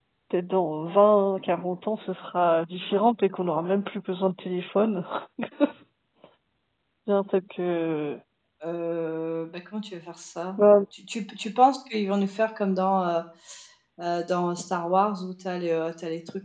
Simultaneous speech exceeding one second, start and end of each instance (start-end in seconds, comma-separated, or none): none